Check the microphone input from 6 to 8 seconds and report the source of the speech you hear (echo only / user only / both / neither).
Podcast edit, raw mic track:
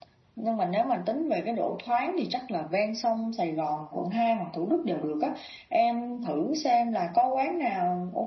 echo only